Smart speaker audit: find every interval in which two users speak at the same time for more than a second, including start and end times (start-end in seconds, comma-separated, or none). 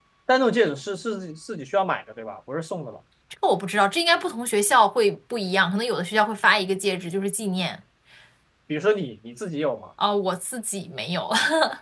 none